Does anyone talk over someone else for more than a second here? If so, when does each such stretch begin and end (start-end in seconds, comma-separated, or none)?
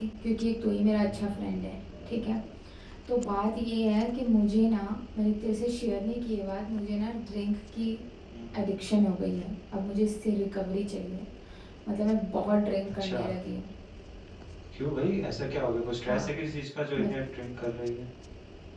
none